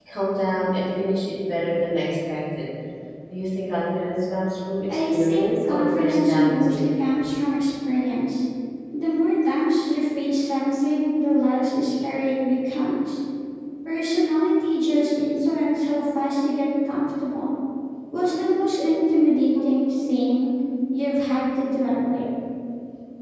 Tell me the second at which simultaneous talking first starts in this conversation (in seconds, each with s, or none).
4.9 s